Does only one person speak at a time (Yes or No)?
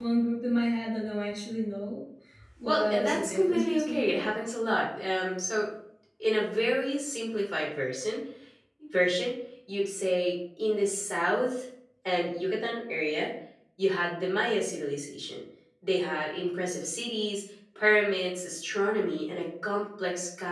No